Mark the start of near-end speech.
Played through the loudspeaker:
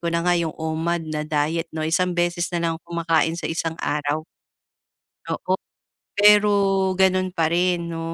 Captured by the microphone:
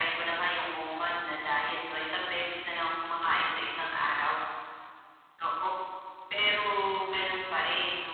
none

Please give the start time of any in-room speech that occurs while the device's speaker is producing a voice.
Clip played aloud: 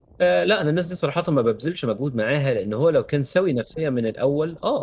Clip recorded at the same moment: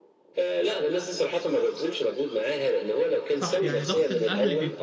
3.3 s

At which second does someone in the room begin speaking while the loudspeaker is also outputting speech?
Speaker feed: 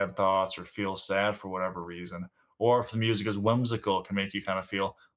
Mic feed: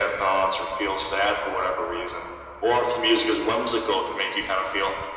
none

